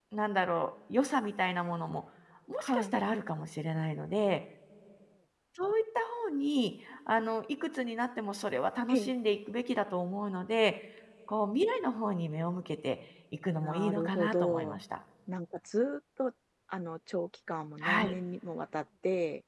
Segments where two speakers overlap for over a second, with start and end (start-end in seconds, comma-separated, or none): 13.6-14.8